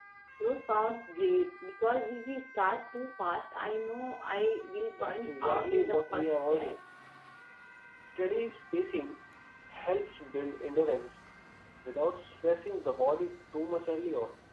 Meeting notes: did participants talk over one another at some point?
Yes, from 5.0 s

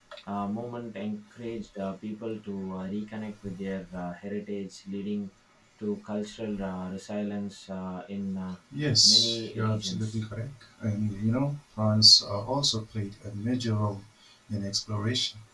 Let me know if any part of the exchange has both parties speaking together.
Yes, from 9.0 s

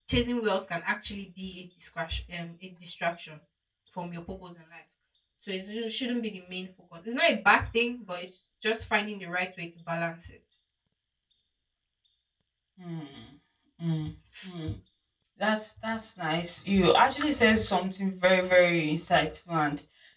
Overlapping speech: No

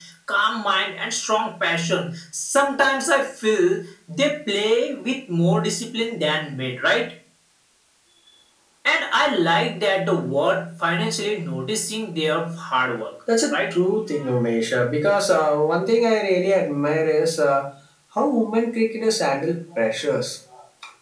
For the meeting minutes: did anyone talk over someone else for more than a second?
No

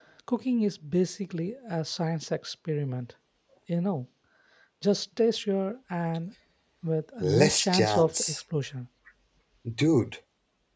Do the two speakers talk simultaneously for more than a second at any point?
Yes, from 7.2 s

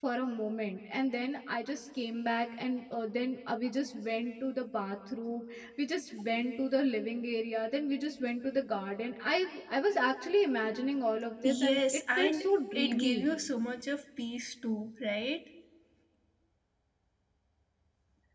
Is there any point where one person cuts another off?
Yes, from 11.4 s

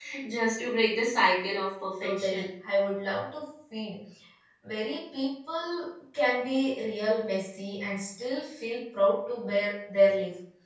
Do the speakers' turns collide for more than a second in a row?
No

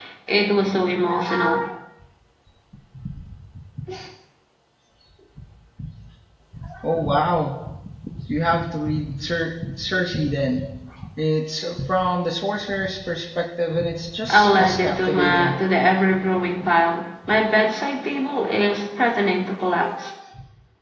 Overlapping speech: Yes, from 14.3 s

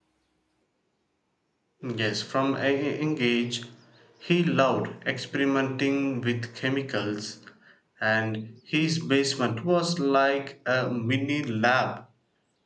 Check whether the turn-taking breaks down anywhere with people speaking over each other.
No

